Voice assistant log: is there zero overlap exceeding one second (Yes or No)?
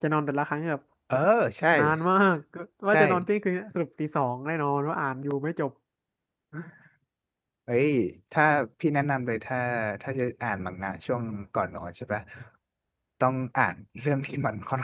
Yes